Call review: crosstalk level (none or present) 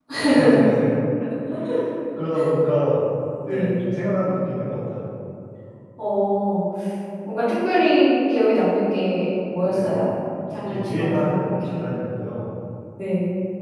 present